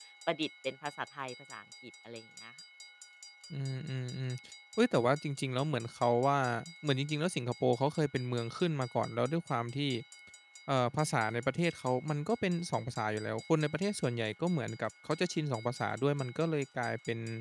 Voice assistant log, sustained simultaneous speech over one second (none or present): none